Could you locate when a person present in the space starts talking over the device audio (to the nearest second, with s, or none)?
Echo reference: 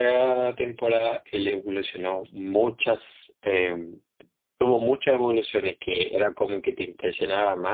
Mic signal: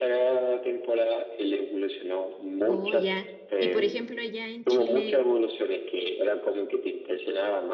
3 s